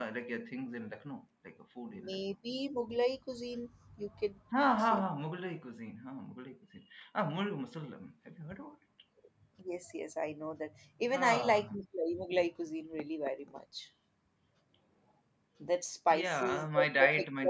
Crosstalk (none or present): present